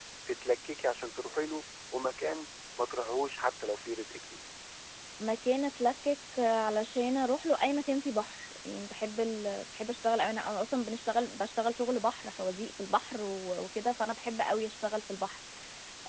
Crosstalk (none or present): none